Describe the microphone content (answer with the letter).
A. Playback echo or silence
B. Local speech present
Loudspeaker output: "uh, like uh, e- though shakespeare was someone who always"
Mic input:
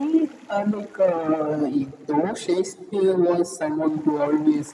A